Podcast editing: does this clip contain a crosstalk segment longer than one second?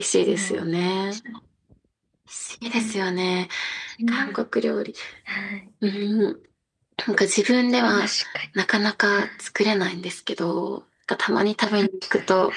No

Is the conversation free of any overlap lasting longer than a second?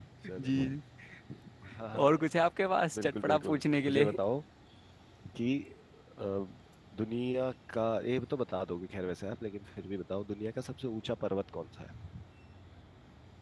No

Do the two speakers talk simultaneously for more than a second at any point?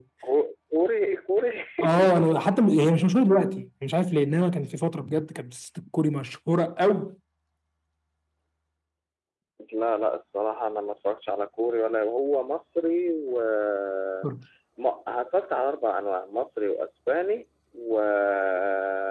No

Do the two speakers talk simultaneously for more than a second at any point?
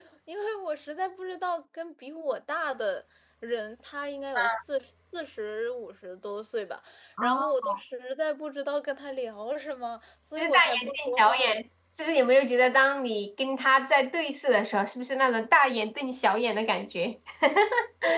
Yes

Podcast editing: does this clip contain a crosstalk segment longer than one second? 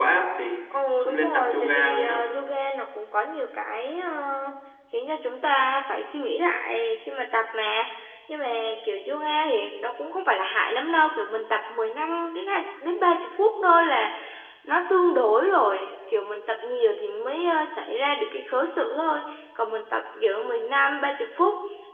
Yes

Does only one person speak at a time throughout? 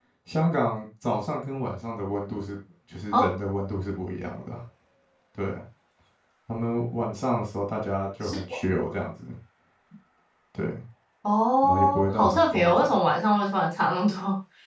No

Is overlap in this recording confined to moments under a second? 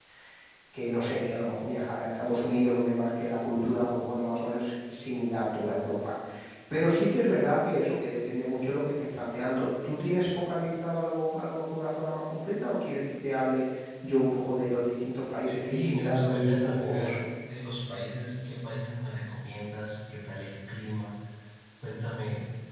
No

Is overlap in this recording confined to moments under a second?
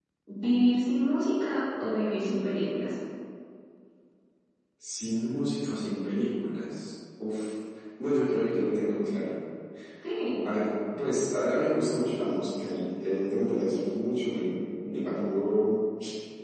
Yes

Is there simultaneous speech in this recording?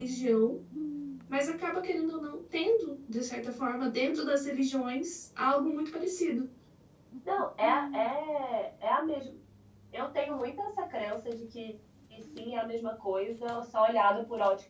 No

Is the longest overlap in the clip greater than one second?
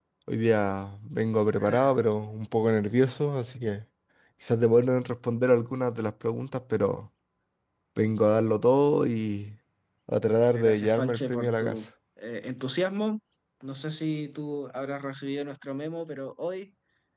Yes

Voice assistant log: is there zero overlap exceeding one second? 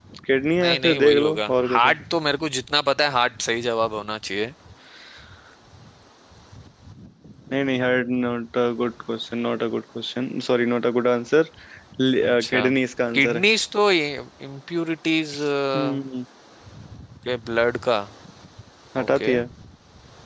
No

